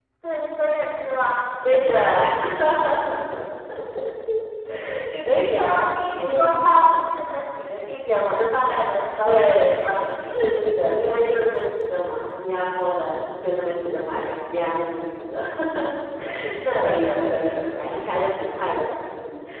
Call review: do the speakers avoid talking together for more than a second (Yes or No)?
No